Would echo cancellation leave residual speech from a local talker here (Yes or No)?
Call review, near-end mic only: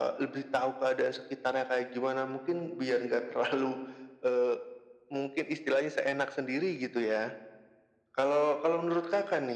No